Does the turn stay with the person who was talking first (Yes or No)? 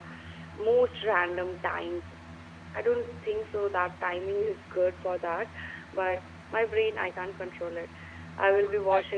Yes